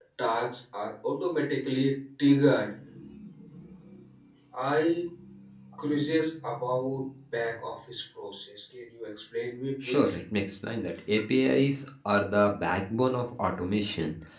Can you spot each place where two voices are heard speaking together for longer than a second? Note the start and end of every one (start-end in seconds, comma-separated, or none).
none